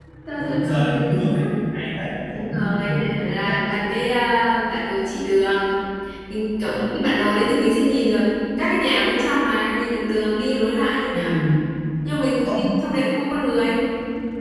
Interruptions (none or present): present